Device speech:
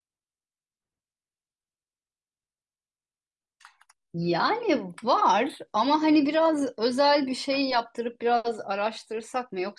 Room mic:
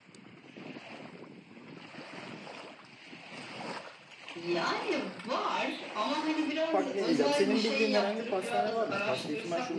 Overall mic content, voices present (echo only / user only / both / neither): both